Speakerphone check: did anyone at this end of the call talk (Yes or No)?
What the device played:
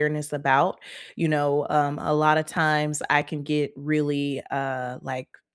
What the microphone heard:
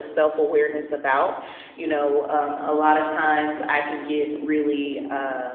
No